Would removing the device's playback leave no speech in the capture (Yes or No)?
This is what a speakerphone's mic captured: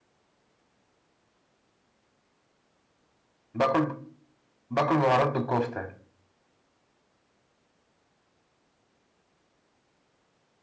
No